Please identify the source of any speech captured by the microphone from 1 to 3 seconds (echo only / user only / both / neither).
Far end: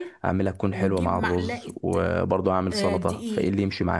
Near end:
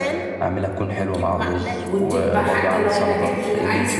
both